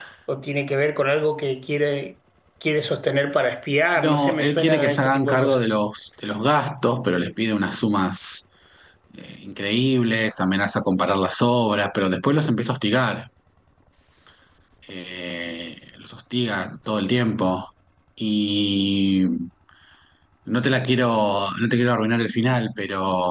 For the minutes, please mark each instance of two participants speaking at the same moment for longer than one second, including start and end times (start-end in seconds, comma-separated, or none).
4.0-5.7